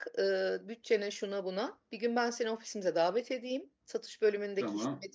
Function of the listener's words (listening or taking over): listening